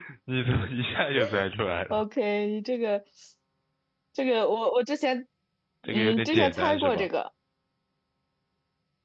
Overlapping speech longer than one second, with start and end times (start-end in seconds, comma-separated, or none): 5.9-7.1